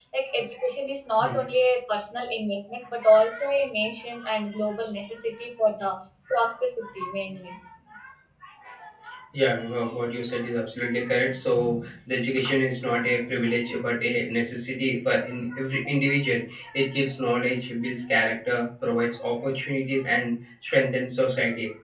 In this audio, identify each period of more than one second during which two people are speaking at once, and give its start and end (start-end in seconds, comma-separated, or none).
none